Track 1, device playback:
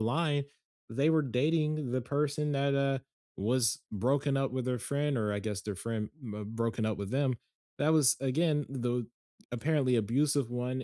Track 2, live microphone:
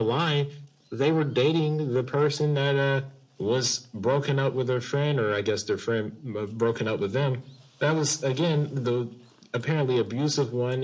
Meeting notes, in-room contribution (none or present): none